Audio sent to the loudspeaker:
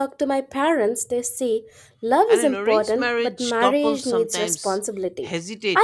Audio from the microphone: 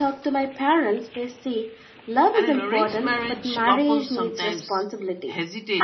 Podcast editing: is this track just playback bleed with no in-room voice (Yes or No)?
Yes